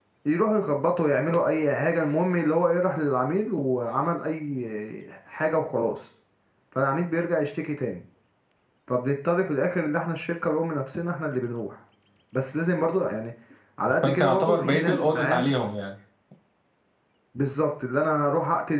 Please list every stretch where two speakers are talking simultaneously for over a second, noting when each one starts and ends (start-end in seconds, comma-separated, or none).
14.0-15.5